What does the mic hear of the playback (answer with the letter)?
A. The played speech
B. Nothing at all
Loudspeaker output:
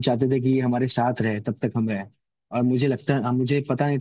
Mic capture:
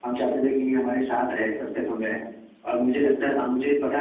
A